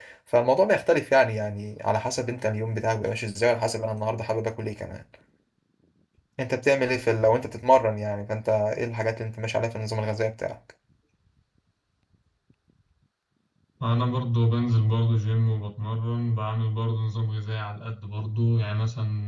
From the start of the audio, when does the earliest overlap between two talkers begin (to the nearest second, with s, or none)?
none